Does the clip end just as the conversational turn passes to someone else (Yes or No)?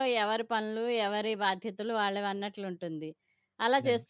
No